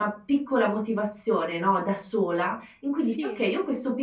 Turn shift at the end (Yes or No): No